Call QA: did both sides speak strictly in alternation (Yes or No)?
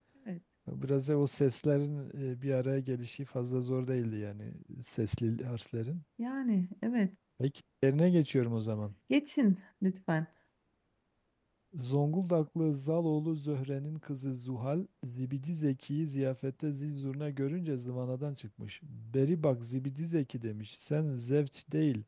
Yes